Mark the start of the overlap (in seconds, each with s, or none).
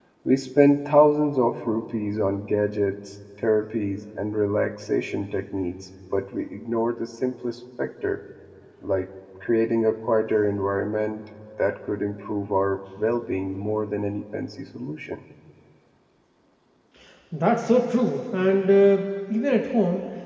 none